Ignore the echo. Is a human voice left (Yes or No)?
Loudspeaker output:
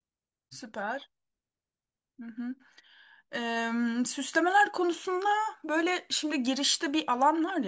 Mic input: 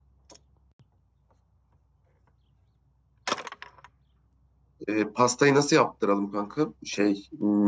Yes